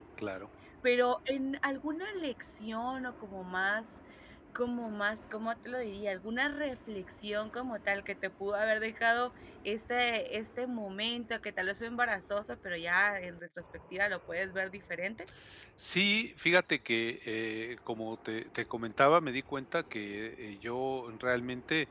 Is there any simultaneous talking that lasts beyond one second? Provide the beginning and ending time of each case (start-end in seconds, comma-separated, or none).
none